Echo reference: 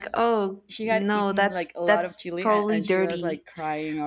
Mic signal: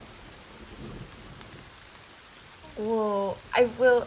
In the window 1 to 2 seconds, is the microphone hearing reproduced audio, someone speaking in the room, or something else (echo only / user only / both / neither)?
neither